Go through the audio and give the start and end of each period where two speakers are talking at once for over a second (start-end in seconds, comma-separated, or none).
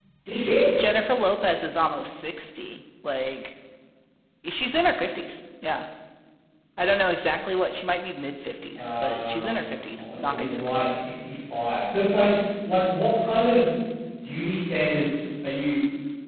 8.8-10.9